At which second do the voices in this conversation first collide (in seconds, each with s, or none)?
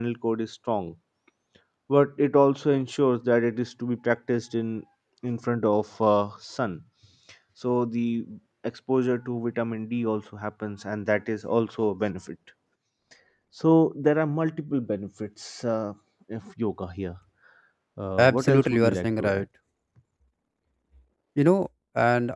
18.2 s